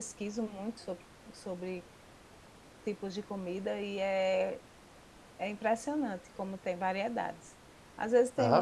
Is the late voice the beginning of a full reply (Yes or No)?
No